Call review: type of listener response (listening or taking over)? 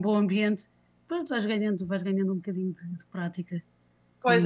taking over